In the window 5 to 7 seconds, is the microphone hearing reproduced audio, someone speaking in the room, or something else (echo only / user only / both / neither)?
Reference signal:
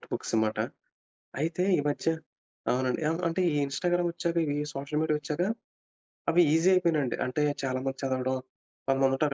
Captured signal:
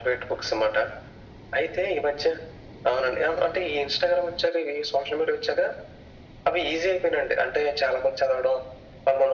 echo only